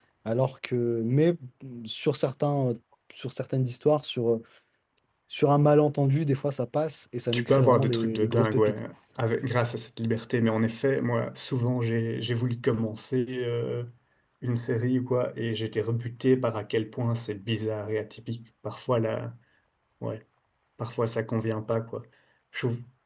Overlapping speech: Yes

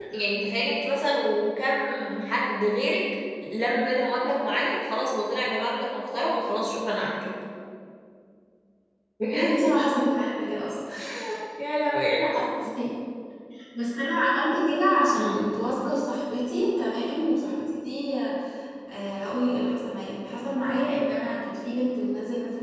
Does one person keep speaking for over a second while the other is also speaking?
No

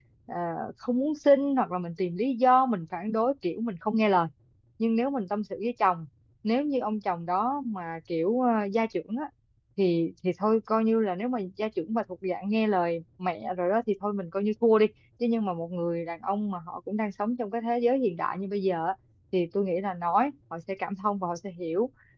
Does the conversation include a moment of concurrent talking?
No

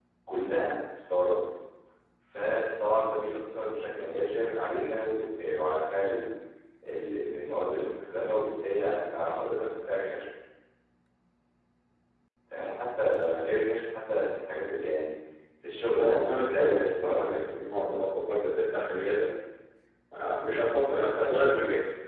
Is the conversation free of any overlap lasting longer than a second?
No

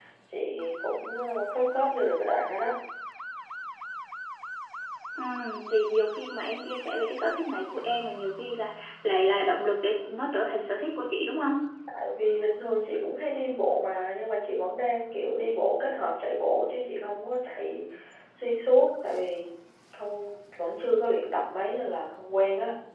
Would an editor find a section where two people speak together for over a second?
No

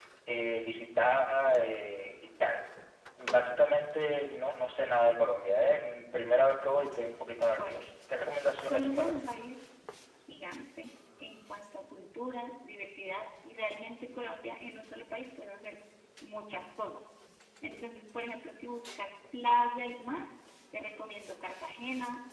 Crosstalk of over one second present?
No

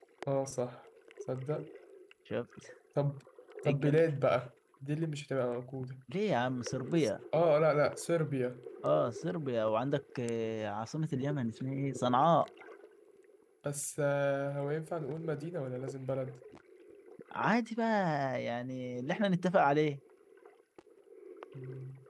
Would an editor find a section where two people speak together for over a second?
No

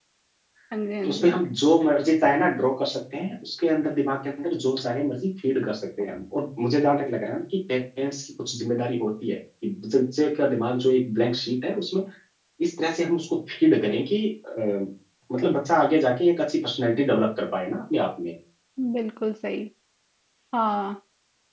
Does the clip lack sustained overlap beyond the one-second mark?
Yes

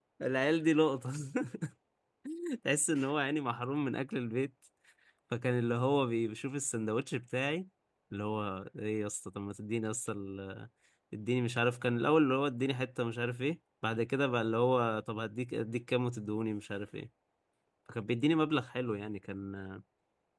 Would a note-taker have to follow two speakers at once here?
No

